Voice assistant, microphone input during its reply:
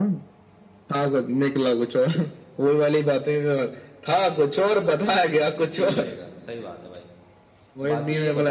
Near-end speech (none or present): present